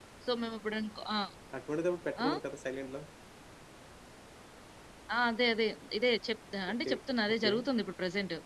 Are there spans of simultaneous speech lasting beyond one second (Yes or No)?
No